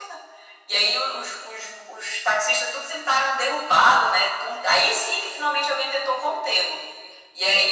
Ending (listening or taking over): listening